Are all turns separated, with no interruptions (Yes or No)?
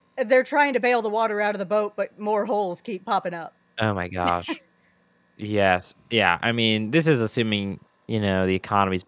Yes